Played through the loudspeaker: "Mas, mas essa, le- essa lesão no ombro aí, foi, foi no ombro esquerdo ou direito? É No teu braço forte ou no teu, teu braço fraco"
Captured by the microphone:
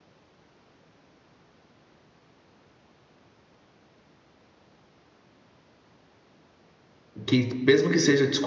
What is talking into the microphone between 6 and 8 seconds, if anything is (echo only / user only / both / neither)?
user only